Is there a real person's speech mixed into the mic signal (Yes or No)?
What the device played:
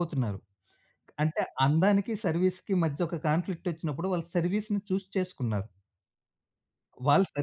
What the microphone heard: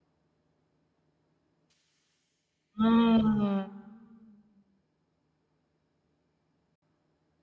Yes